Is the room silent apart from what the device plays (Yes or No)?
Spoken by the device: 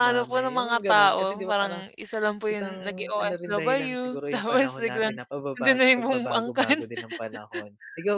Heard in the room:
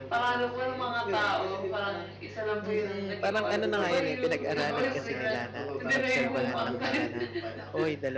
No